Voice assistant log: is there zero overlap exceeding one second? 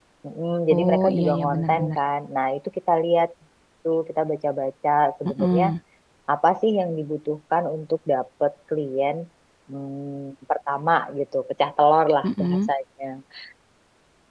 No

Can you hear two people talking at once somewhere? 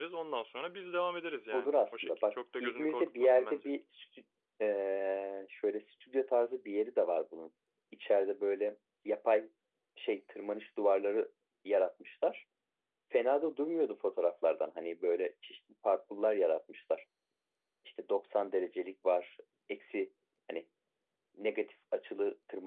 Yes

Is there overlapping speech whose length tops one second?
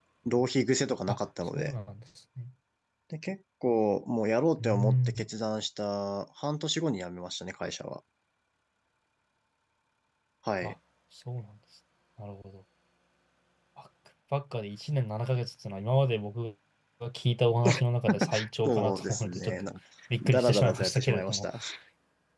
Yes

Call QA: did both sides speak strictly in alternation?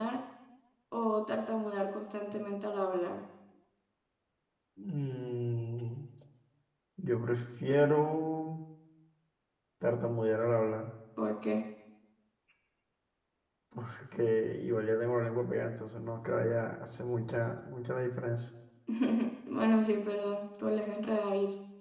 Yes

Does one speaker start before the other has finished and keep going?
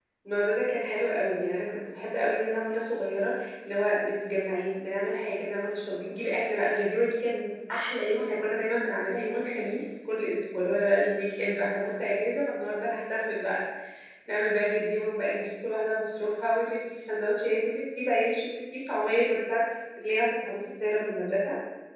No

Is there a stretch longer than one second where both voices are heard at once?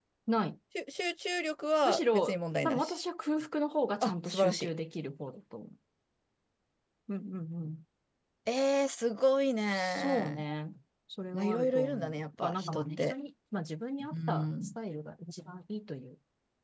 Yes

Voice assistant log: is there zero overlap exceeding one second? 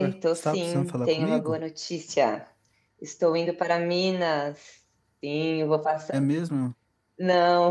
No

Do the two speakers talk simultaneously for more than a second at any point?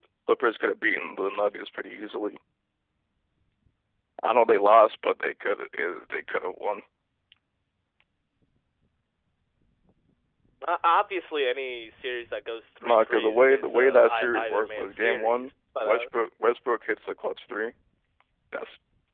Yes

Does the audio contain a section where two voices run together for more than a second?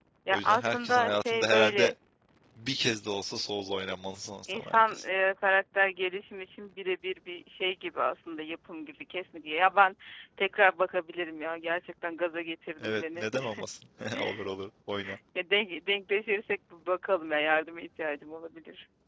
Yes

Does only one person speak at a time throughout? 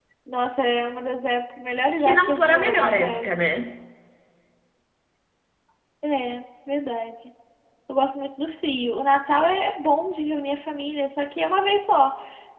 No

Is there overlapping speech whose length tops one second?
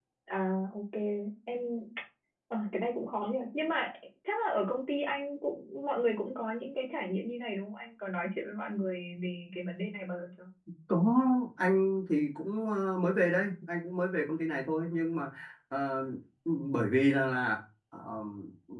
No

